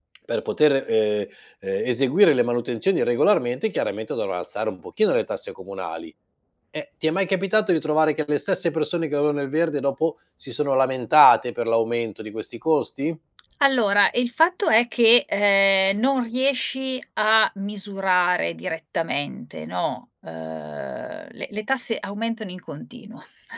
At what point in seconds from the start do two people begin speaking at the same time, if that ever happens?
none

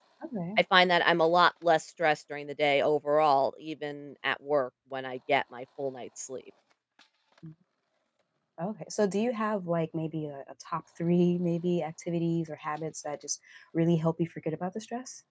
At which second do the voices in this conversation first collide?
none

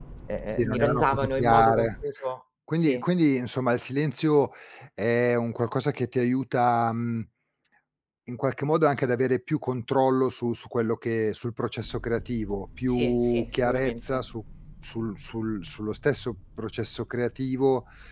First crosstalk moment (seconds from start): 1 s

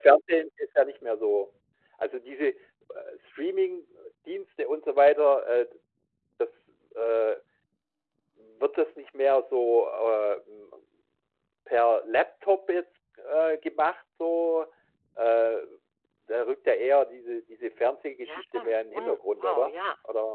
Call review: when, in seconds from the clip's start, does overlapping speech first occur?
18 s

